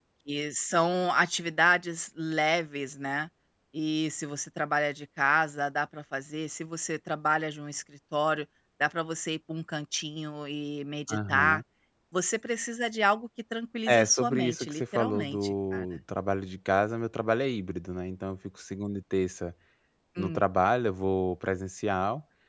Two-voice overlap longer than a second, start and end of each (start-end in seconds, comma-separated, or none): 13.9-15.8